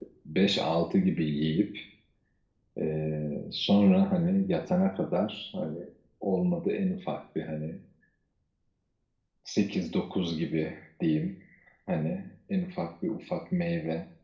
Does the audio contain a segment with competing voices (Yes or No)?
No